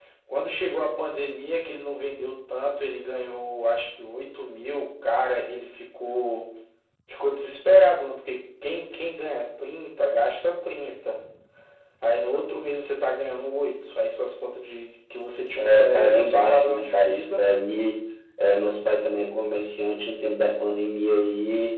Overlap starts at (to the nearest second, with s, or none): 16 s